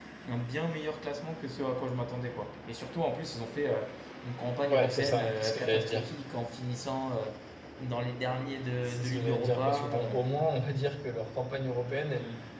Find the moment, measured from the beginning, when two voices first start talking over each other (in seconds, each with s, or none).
4.7 s